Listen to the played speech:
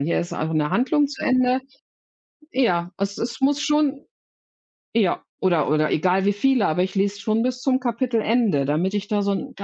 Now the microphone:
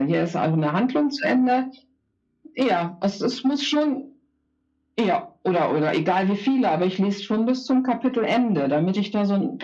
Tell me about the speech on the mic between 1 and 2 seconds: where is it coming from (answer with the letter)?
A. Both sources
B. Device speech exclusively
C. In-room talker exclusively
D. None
B